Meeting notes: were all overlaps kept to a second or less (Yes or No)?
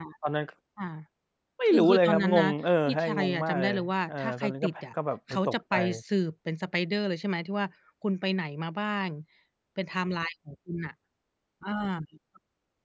No